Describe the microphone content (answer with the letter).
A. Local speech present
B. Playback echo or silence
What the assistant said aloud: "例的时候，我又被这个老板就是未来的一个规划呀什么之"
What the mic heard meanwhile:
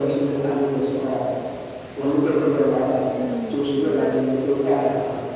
A